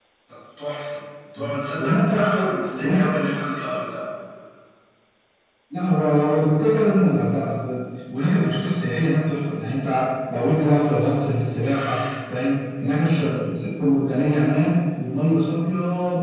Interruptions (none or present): present